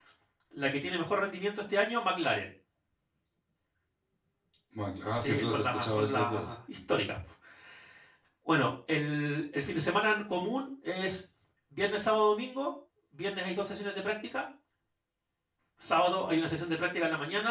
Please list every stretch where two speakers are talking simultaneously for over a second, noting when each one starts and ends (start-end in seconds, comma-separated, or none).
5.2-6.5